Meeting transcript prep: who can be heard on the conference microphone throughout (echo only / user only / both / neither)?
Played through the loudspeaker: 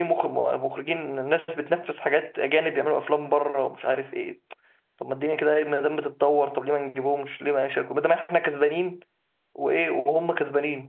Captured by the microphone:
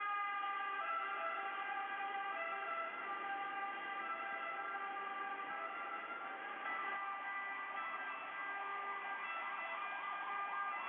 neither